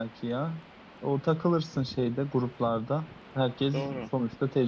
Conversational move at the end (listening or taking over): listening